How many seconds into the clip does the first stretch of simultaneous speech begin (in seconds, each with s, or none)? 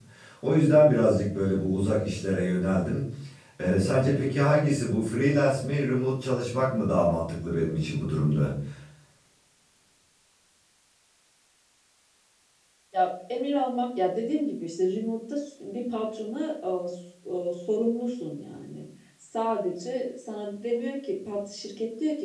none